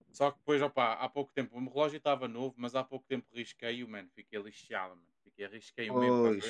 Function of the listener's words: listening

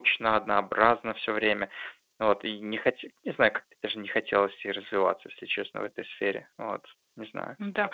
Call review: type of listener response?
taking over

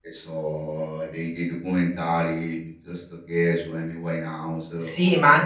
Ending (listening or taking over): taking over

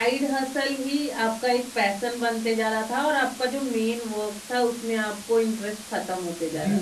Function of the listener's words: taking over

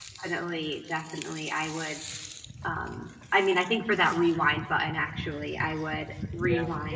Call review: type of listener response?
listening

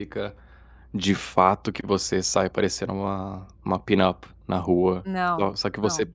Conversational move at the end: listening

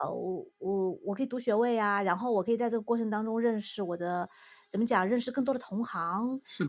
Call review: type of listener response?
listening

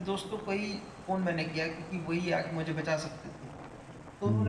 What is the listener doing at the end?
listening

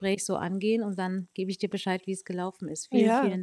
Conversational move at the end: taking over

